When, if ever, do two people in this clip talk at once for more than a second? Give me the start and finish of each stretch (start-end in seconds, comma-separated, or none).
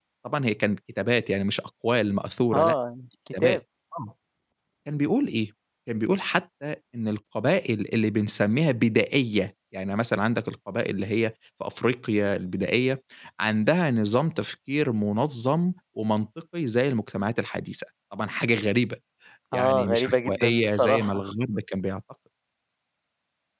19.5-21.2